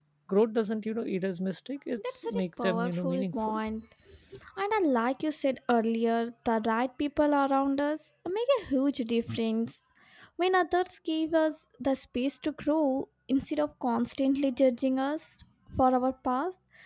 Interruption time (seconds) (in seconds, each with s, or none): 2.0 s